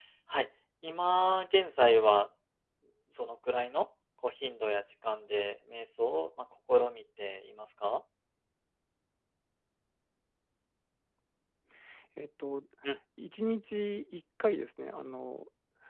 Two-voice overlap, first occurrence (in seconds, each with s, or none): none